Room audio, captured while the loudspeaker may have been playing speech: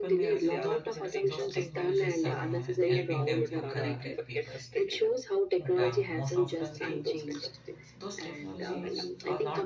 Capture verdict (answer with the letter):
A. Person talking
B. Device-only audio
A